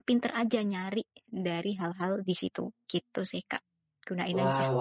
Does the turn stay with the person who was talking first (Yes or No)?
No